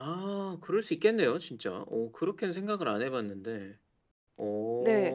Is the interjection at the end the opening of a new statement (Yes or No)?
Yes